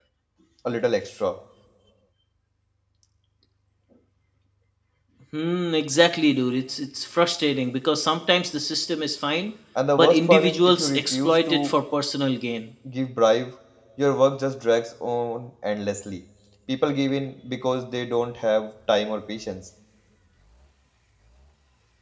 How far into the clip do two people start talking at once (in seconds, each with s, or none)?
10.0 s